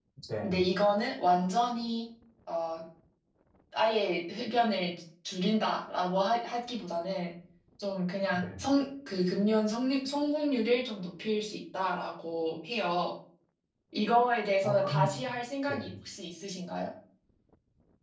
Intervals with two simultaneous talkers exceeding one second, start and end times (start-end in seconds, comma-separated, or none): none